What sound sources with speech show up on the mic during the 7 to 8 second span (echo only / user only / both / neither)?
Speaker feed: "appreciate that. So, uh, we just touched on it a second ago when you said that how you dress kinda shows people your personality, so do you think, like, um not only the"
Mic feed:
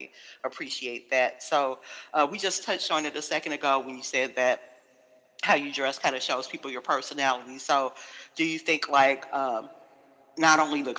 echo only